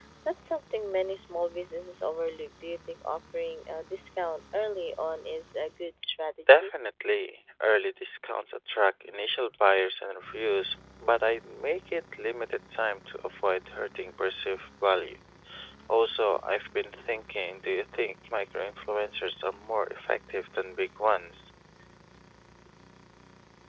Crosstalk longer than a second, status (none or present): none